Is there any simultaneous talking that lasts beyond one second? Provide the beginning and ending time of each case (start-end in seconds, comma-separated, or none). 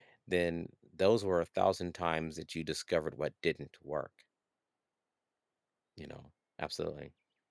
none